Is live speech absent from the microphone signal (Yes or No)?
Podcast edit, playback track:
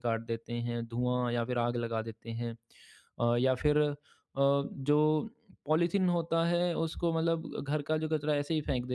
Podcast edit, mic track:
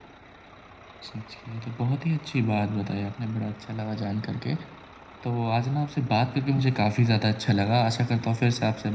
No